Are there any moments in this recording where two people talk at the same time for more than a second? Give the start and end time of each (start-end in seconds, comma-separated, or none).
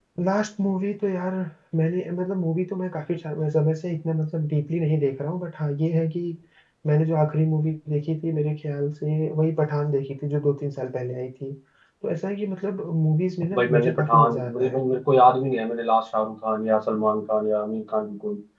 13.5-14.8